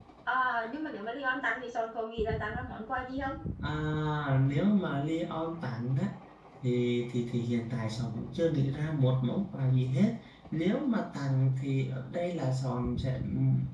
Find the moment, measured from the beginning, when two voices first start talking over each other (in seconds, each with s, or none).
none